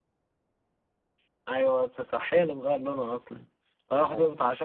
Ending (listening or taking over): listening